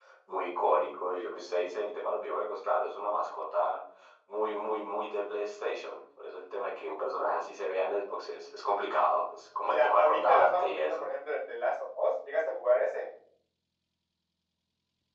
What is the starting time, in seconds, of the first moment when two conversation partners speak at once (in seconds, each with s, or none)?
9.7 s